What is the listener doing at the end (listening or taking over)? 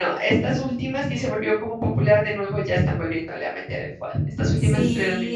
taking over